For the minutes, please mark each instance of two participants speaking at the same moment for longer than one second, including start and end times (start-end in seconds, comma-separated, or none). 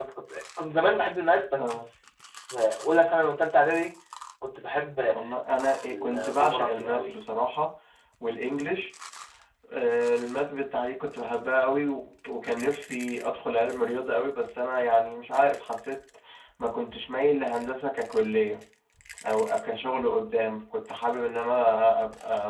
5.8-7.1